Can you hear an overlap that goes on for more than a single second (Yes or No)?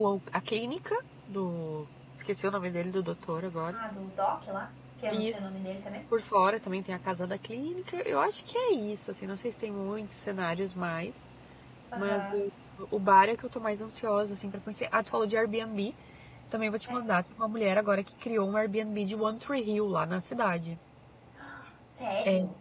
No